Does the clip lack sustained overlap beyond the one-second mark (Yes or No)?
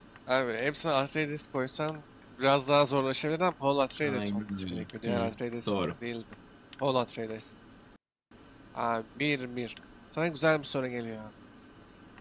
No